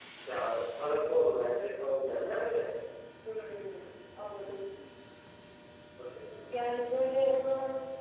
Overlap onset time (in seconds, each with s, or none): none